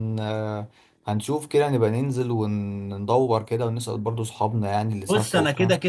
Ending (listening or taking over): taking over